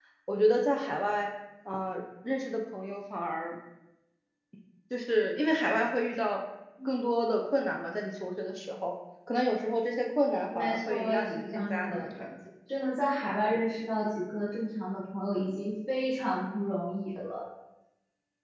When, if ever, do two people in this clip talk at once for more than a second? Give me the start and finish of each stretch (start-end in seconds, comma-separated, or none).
10.6-12.3